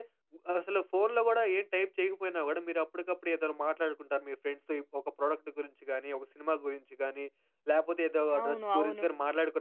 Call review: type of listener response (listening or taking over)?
listening